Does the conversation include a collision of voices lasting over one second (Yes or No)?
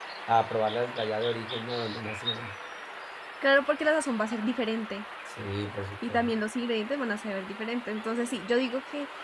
No